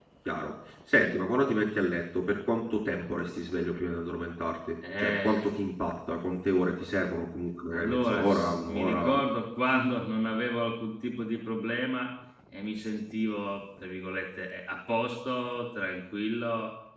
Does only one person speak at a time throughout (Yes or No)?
No